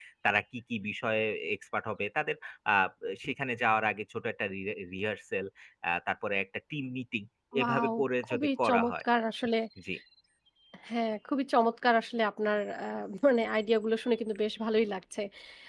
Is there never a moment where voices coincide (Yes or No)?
No